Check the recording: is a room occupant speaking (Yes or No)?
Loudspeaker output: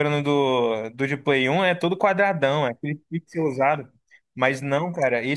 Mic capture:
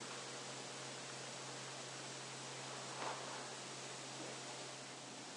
No